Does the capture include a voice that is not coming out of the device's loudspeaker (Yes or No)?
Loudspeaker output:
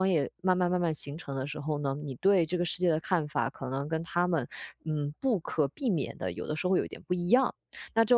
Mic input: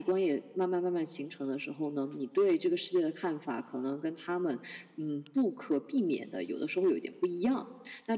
No